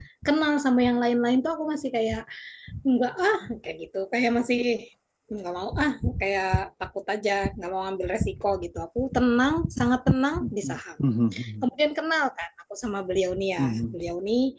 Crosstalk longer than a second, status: none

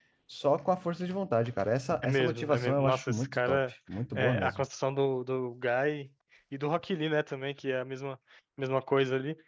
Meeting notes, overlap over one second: present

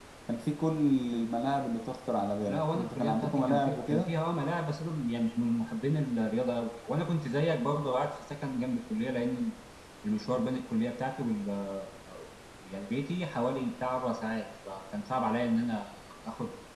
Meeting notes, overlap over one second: present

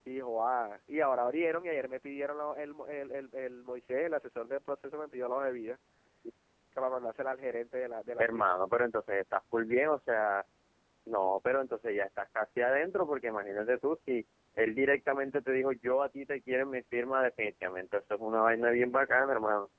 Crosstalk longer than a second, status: none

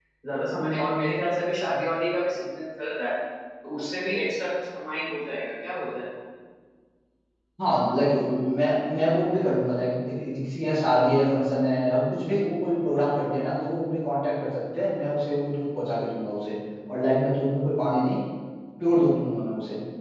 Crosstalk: none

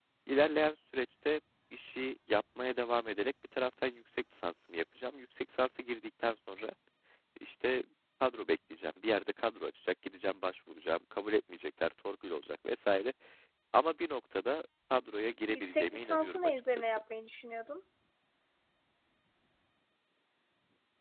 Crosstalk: present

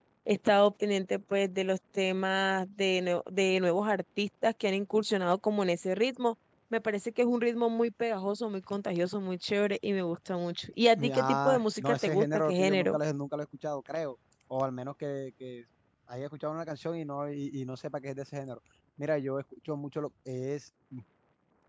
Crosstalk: present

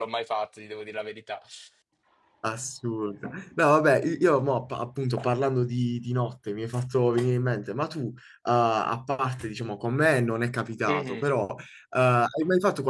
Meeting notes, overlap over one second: none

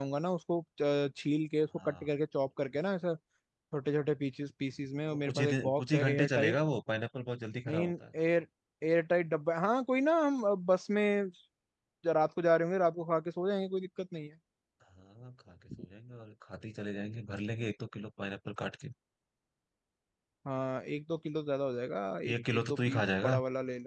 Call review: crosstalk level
present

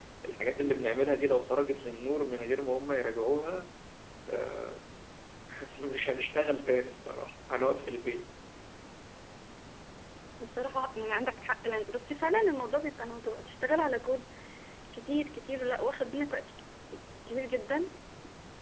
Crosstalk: none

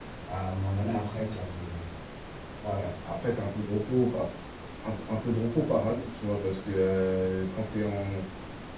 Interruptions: none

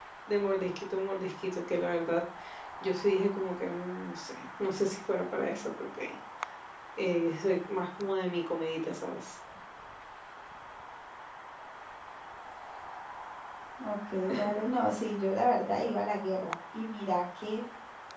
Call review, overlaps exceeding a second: none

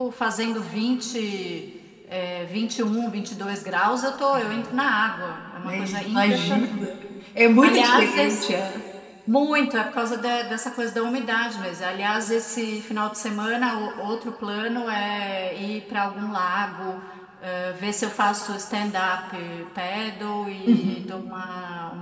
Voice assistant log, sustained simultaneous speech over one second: present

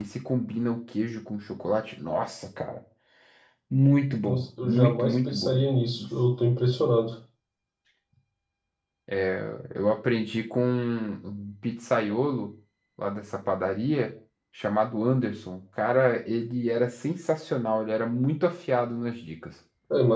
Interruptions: present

